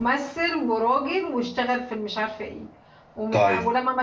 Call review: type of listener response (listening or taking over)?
listening